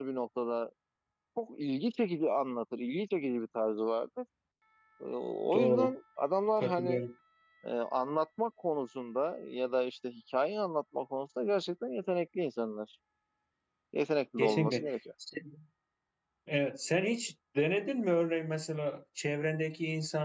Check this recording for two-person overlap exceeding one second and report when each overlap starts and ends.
none

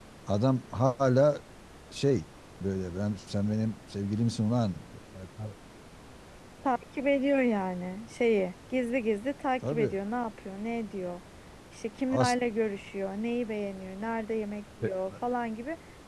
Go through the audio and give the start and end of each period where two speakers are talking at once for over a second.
none

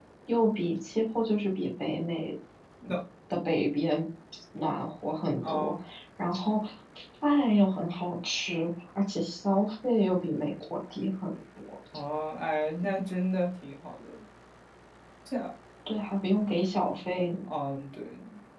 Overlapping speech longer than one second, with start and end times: none

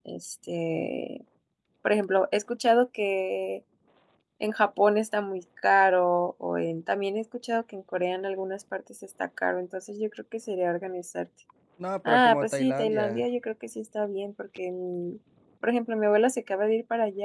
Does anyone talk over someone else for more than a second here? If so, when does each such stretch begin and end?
12.1-13.2

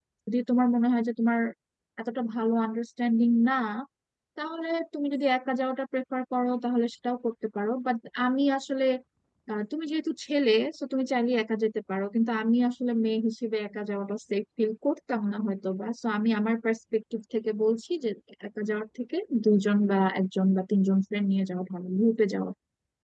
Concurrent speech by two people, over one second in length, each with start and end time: none

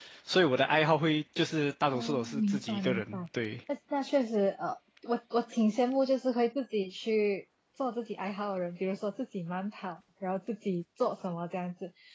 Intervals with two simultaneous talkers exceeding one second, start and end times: 1.9-3.2

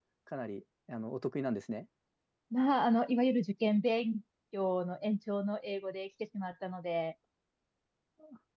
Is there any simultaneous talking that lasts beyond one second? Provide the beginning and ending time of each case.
none

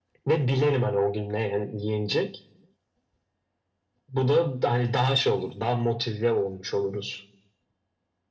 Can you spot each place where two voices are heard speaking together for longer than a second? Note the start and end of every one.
none

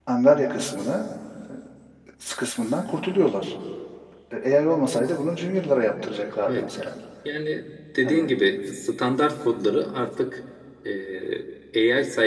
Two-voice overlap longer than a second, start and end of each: none

